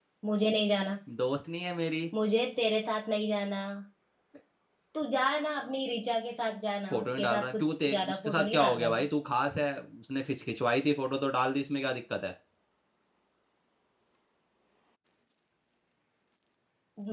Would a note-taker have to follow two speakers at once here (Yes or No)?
Yes